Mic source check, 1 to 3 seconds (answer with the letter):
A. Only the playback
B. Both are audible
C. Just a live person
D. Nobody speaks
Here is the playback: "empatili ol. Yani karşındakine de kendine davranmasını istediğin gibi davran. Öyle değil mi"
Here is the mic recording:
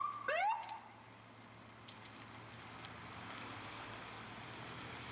D